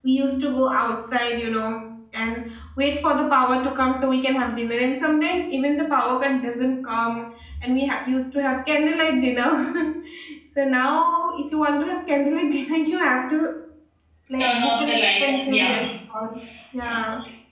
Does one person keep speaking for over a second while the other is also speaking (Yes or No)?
Yes